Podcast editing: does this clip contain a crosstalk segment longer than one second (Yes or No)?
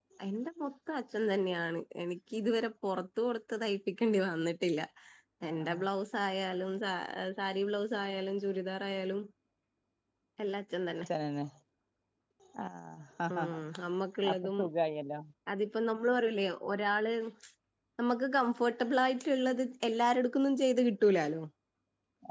No